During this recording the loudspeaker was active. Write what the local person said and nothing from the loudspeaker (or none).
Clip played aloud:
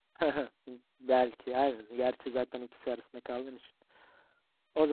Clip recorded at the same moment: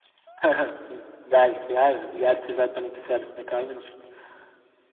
none